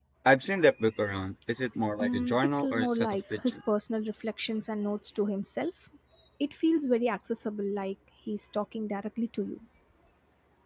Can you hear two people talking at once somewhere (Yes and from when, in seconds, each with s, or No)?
Yes, from 2.0 s